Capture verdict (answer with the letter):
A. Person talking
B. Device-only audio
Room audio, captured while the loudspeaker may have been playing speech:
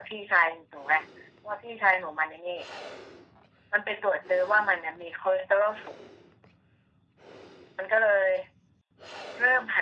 B